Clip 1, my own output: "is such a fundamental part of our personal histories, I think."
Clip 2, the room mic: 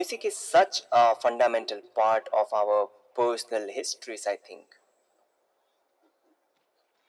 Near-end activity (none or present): none